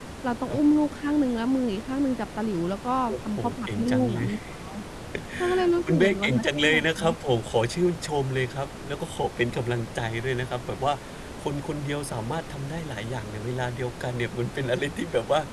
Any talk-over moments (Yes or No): Yes